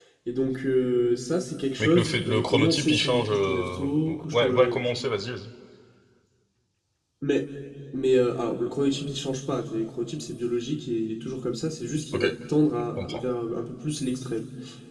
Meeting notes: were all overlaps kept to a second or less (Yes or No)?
No